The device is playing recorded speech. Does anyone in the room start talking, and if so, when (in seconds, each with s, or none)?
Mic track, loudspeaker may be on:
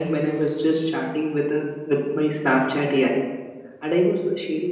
none